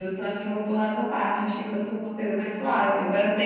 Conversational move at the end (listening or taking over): listening